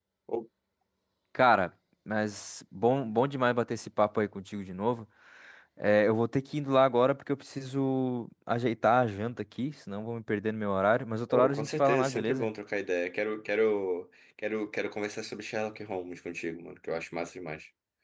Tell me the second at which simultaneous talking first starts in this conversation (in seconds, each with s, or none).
11.3 s